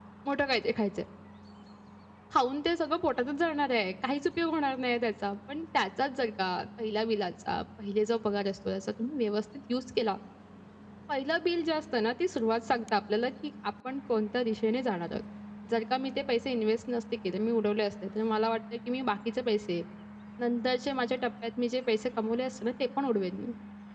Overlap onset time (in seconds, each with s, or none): none